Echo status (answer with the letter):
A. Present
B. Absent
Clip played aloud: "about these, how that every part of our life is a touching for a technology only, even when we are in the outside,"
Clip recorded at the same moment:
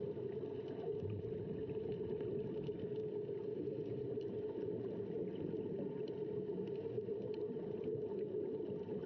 B